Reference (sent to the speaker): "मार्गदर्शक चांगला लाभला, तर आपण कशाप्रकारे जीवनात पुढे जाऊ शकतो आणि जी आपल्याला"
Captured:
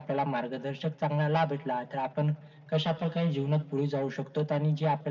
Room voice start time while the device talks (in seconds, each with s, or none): none